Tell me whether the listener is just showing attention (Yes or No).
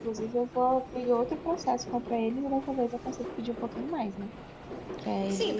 No